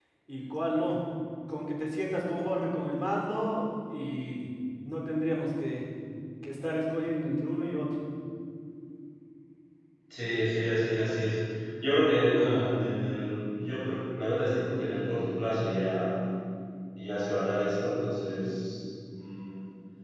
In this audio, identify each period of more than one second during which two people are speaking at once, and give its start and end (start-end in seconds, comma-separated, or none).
none